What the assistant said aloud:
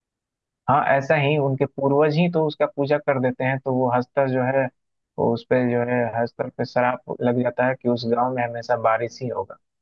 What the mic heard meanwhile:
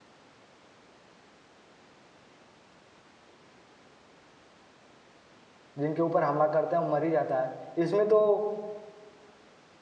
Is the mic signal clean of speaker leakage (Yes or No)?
Yes